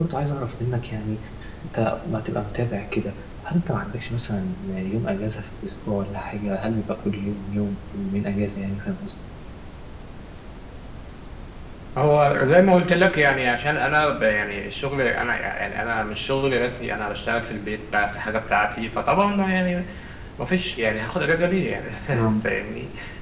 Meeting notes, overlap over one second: none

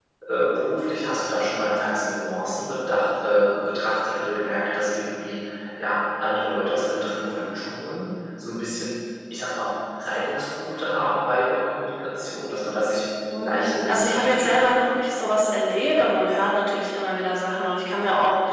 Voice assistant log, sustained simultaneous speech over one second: present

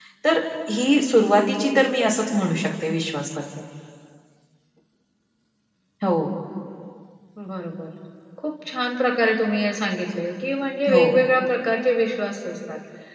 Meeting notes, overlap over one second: none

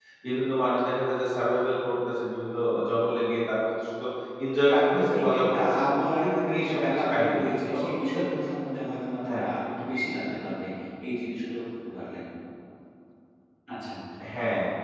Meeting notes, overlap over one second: present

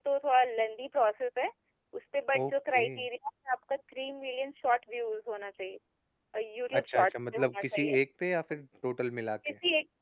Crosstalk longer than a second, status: present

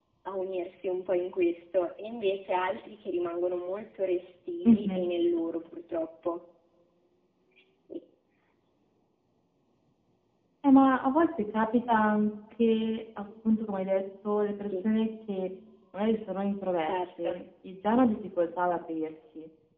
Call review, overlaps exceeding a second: none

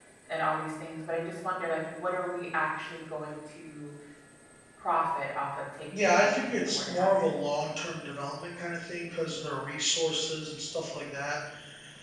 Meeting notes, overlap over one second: present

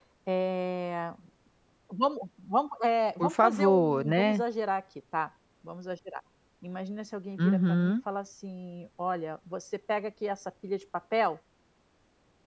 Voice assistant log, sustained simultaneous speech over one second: present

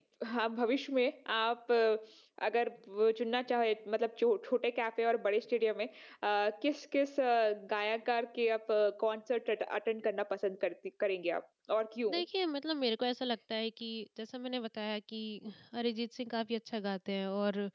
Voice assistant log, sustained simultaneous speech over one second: none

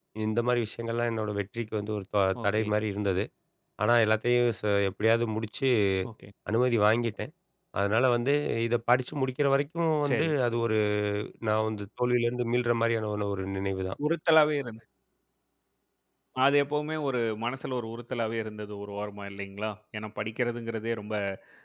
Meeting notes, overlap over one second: none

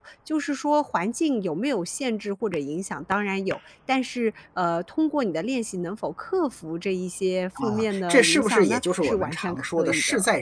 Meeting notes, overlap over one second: present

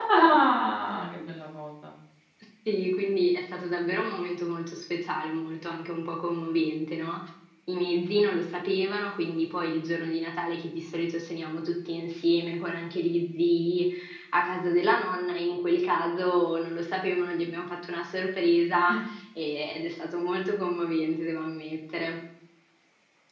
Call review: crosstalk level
none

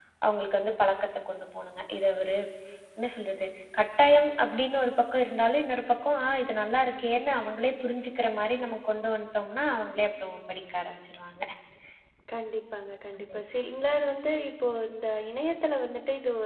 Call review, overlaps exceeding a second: none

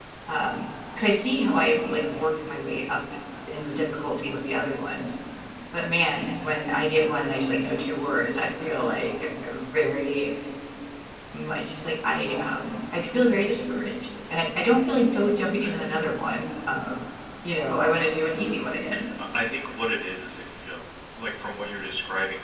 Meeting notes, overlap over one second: none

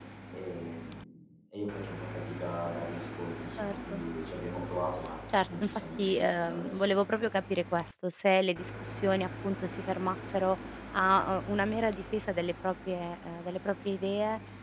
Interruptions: present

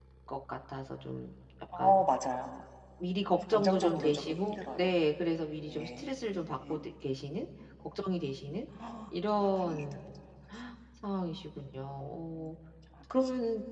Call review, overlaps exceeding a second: present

